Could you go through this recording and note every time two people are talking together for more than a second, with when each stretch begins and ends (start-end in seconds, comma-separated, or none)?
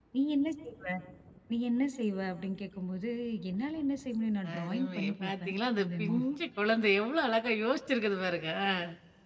4.5-6.2